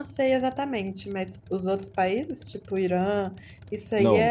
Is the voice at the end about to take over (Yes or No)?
Yes